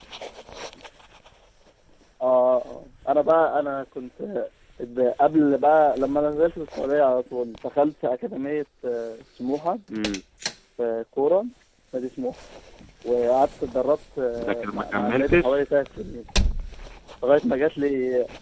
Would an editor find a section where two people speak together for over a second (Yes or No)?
Yes